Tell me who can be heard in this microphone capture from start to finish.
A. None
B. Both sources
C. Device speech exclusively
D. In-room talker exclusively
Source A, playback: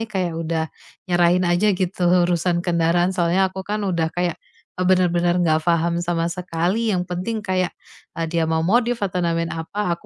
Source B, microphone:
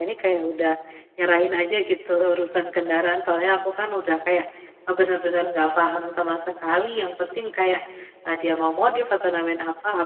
C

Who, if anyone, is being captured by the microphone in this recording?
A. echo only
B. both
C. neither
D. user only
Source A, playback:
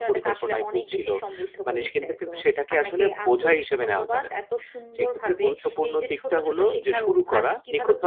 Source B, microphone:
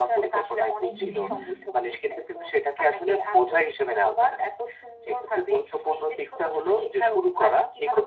B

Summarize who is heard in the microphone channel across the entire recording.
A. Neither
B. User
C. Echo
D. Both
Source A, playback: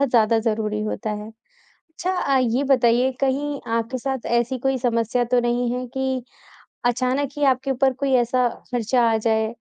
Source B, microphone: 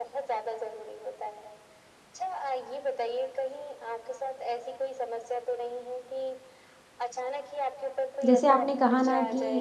D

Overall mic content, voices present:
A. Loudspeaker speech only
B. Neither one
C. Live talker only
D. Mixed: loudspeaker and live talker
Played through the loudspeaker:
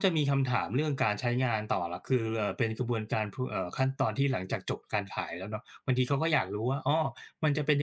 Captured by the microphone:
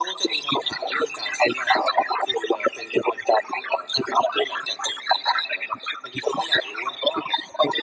A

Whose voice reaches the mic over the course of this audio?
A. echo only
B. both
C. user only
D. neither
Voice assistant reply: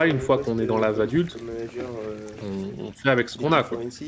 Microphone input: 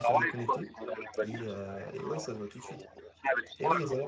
B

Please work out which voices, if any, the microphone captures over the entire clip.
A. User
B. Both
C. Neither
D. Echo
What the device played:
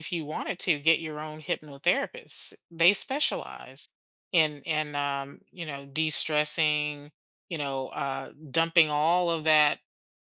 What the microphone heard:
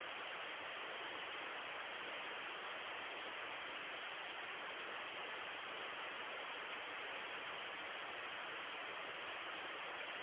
C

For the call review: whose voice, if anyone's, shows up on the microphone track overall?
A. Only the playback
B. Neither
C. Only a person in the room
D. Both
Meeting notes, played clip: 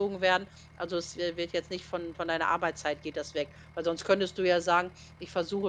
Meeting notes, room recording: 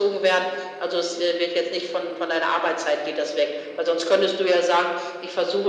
A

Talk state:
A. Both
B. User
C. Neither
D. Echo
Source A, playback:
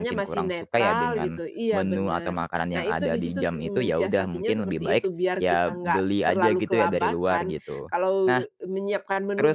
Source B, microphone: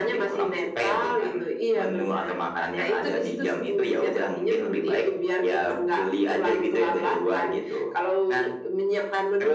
D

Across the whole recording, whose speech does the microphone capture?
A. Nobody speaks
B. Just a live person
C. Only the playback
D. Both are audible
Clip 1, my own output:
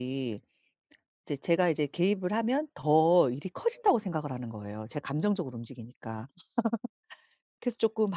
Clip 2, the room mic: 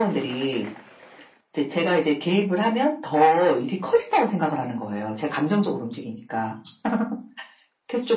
C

